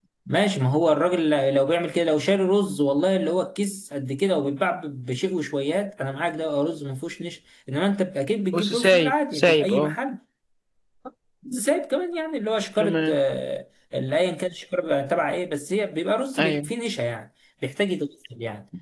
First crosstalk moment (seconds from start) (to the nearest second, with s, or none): 9 s